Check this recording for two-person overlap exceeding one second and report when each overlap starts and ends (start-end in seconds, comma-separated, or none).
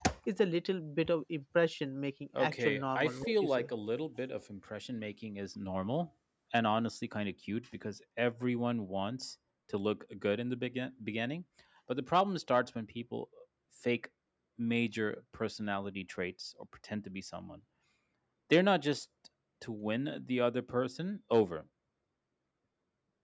2.4-3.7